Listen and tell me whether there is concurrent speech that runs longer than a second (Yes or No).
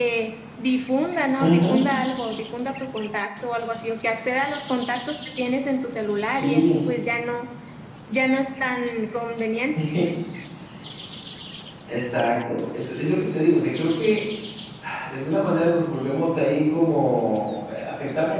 No